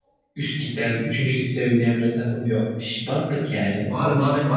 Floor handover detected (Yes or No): Yes